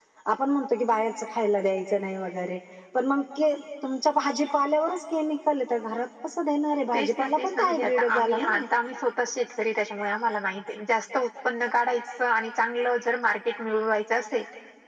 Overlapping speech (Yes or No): Yes